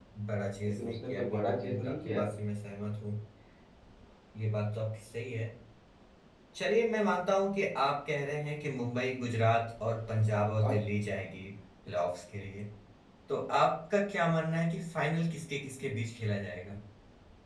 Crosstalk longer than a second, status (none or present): present